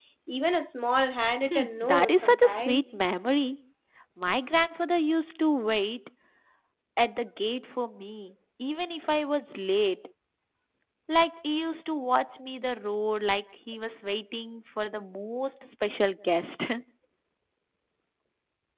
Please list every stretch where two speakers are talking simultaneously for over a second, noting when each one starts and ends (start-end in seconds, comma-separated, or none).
1.5-3.0